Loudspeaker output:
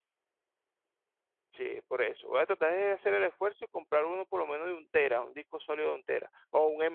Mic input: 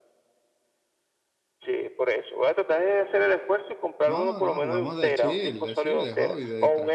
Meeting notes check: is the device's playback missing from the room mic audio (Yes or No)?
No